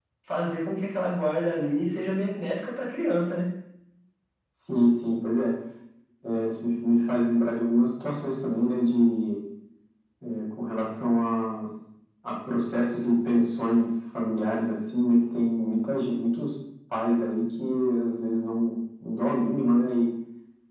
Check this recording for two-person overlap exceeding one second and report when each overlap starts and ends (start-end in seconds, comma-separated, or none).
none